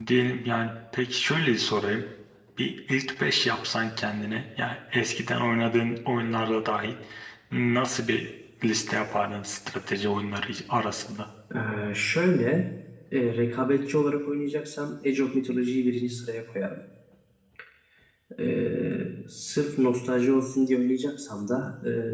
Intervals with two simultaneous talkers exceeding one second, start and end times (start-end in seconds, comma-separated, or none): none